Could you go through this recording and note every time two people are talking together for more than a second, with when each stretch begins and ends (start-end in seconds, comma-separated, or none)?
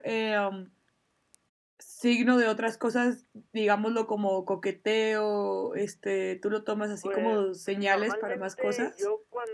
7.0-8.9